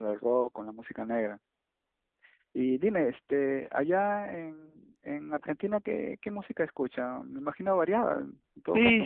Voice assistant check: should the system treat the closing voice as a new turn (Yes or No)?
Yes